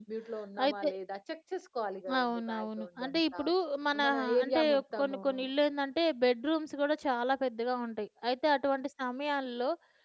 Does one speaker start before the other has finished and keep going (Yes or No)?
Yes